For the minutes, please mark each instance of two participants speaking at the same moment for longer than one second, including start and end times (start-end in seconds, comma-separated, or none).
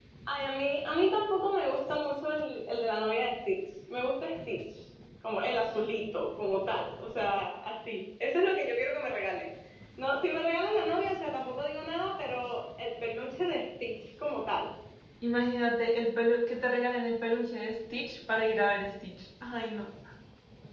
none